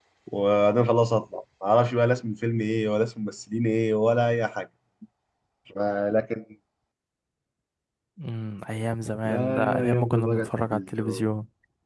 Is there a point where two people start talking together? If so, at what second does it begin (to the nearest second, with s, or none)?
9 s